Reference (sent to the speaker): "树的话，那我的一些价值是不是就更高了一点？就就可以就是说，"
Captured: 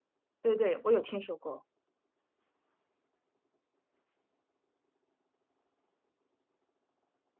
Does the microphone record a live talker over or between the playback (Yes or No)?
Yes